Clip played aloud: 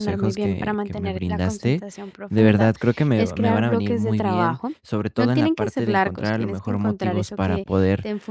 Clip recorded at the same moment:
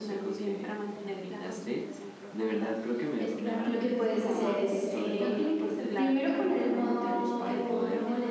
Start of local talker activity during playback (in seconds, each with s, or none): 3.6 s